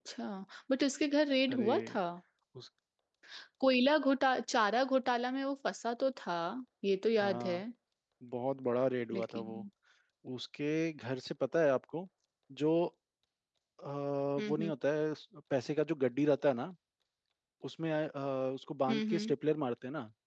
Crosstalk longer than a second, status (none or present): none